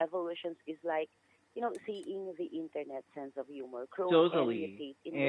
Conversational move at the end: taking over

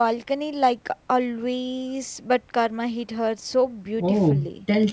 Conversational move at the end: taking over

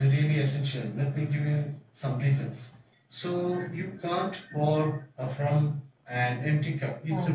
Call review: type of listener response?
listening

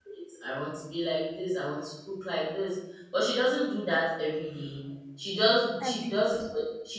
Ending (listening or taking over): listening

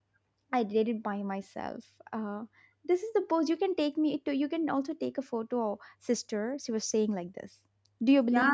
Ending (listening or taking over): taking over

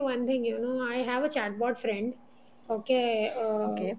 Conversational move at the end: listening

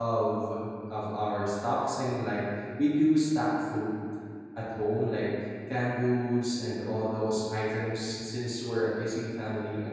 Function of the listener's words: listening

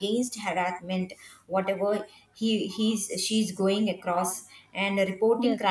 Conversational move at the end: listening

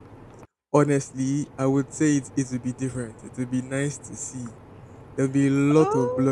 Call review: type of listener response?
listening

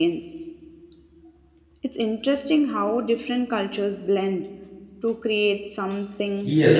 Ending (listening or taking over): taking over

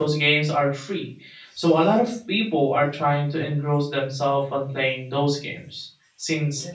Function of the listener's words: listening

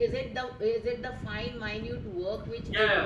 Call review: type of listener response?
taking over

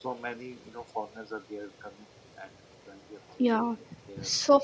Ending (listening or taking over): taking over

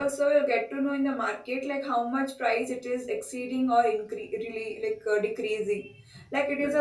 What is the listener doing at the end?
listening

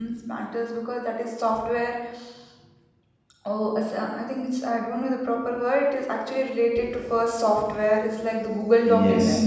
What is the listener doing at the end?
taking over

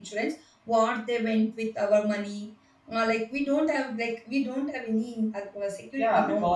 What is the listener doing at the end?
taking over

